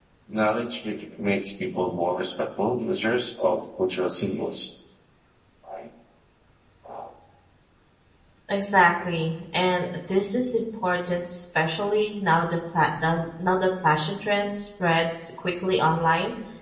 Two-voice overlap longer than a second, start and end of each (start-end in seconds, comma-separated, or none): none